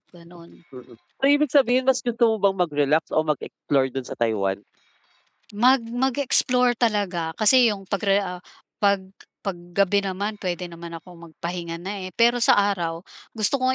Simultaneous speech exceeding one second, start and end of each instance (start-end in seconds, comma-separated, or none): none